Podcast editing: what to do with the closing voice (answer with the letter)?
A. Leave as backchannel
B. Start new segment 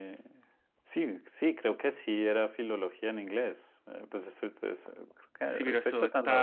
B